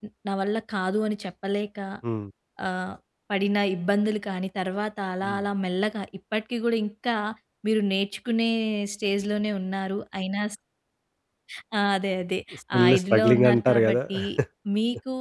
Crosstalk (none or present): present